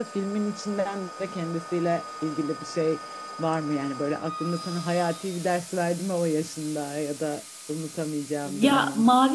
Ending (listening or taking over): taking over